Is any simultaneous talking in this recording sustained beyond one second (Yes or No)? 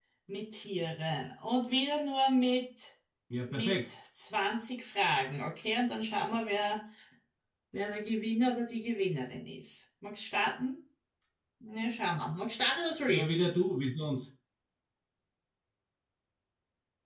No